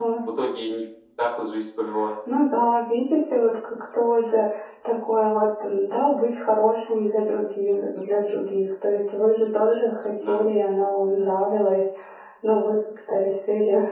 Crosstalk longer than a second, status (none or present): none